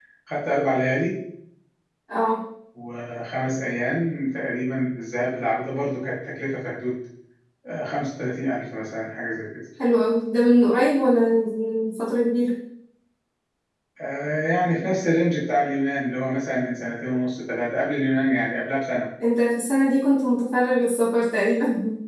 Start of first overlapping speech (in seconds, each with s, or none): none